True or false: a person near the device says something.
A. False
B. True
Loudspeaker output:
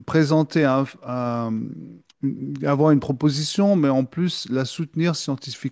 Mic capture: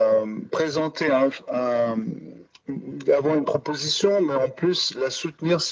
A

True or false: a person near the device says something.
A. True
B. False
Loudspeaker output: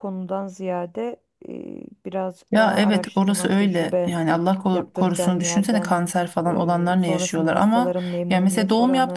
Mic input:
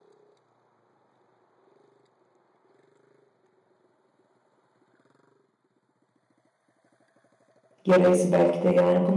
A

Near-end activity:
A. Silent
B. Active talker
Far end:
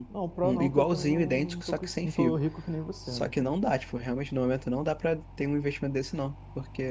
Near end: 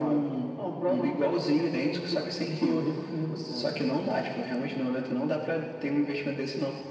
A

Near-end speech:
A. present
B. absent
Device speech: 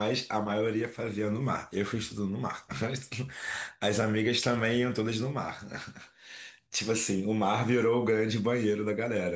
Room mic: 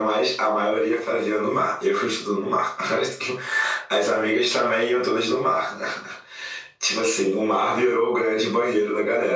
B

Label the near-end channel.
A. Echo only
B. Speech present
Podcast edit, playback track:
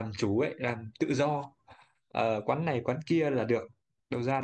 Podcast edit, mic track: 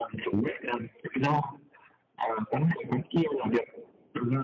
A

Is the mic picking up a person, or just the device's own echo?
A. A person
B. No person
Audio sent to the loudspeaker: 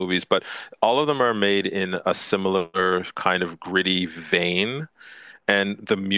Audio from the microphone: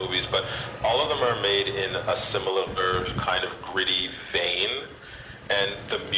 B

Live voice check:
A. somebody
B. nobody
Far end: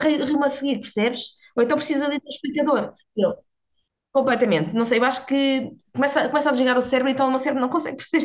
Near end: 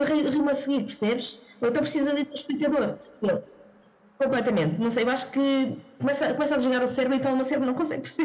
B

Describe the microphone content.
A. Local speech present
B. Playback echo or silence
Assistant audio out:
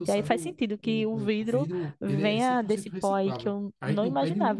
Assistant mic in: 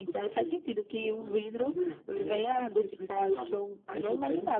B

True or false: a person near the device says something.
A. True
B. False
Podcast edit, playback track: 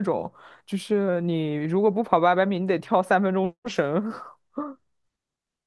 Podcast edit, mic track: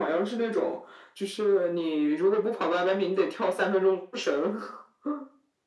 B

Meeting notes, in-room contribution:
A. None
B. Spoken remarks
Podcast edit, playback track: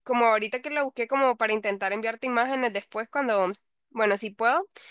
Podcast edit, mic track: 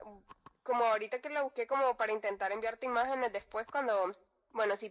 A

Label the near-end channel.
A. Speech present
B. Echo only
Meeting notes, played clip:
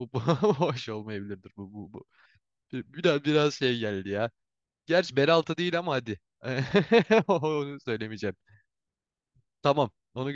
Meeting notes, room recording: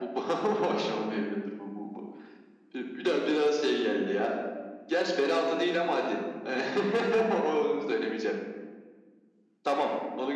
B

